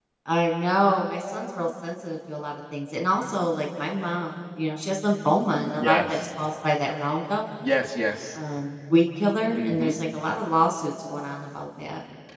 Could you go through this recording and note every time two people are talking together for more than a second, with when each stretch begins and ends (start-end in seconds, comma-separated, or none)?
none